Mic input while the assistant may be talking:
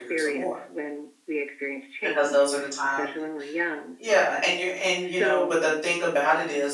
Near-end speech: present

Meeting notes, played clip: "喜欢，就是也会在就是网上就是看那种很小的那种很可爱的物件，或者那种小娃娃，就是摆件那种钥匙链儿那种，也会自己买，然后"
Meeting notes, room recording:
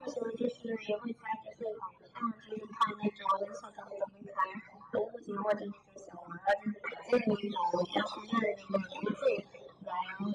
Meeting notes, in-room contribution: none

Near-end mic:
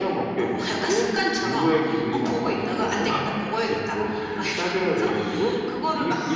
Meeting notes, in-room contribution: none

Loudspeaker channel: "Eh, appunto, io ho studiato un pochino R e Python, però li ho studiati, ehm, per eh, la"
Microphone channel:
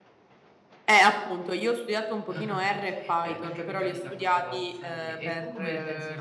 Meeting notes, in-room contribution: present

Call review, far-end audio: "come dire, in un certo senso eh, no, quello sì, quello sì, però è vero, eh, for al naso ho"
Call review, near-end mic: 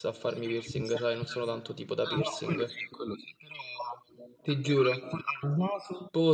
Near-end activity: present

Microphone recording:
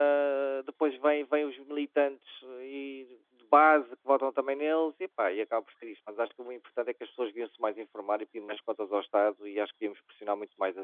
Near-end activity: present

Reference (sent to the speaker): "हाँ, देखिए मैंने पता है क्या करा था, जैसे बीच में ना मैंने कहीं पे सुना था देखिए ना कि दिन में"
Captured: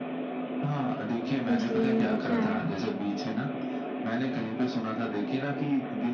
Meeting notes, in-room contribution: present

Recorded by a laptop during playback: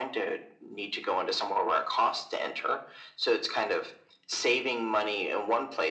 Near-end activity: none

